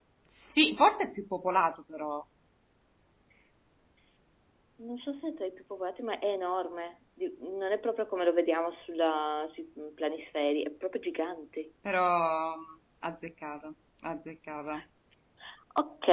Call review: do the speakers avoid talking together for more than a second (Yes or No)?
Yes